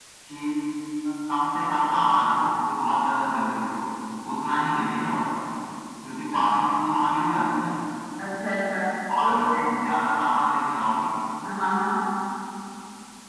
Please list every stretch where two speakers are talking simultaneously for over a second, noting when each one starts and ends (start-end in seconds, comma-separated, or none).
none